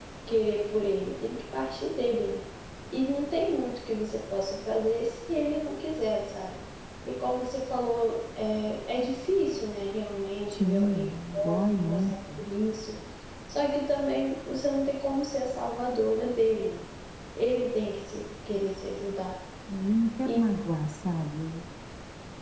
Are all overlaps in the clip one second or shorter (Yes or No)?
No